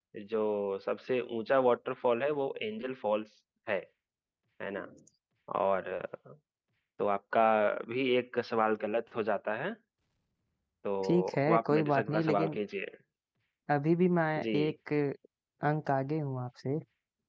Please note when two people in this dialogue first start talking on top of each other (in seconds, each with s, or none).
11.0 s